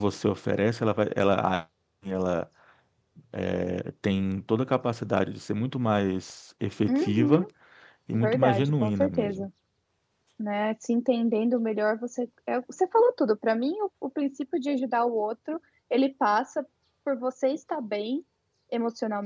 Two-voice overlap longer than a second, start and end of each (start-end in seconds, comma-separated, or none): 8.1-9.5